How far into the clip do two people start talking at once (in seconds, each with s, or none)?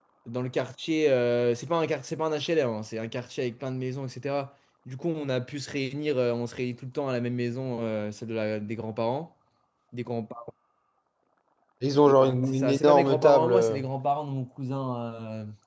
12.5 s